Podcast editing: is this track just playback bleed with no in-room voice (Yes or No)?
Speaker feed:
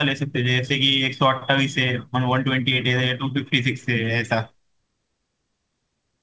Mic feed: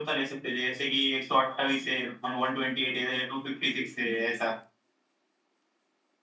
Yes